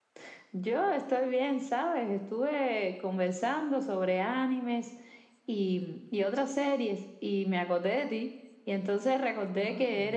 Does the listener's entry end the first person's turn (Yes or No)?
No